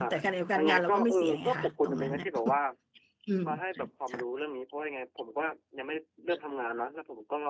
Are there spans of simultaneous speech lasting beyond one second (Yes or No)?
Yes